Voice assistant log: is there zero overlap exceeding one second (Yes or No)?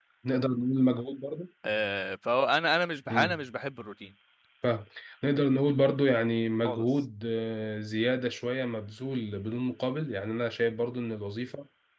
Yes